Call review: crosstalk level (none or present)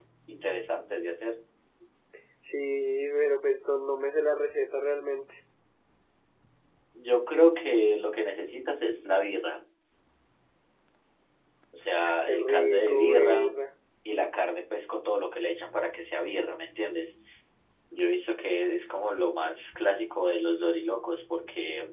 present